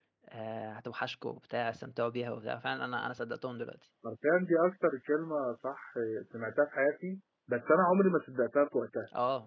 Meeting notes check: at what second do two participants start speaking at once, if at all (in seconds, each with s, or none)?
none